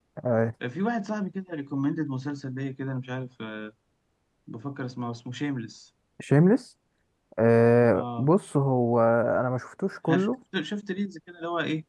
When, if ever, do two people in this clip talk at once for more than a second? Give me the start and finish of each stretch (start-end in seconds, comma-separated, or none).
none